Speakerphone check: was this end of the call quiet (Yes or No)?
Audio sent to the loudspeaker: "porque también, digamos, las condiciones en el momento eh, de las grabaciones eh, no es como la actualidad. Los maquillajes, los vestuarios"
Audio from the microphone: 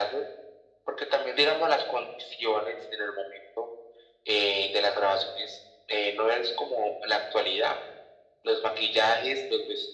Yes